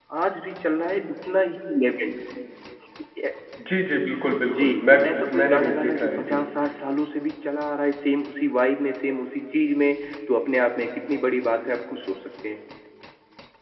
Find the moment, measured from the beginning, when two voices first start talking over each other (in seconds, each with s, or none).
4.5 s